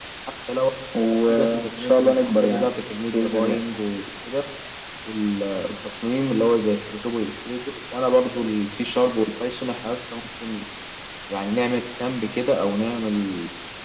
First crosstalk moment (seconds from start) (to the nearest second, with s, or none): 1 s